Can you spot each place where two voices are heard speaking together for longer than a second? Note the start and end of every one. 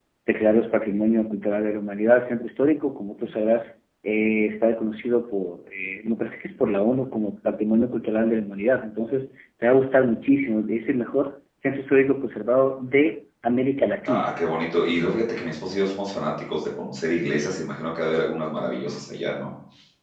none

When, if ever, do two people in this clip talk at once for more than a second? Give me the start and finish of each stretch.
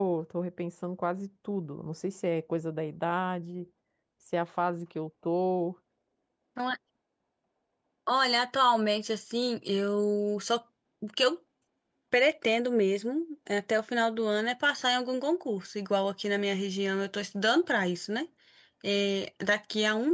none

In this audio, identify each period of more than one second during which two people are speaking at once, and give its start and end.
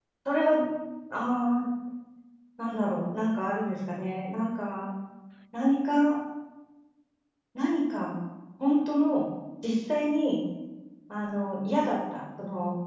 none

